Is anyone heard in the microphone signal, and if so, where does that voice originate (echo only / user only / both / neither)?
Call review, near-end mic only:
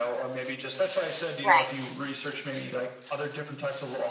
both